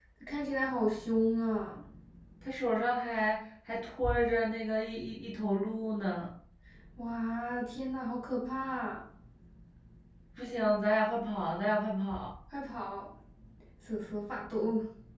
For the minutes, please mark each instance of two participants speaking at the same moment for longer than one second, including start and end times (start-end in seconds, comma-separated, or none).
none